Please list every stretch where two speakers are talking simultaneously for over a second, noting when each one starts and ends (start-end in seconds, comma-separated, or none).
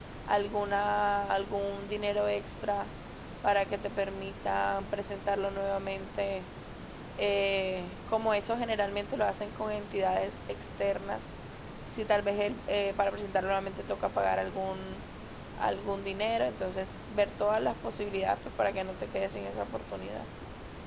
none